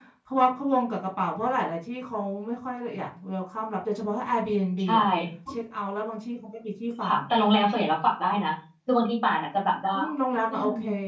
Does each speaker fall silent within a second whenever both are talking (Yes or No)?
Yes